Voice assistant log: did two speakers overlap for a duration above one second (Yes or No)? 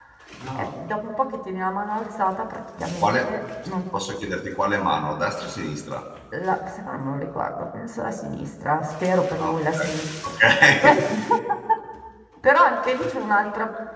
No